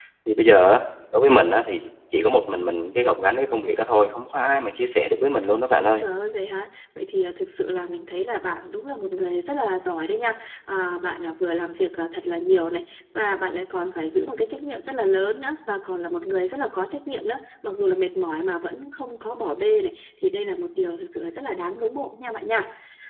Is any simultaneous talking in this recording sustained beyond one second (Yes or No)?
No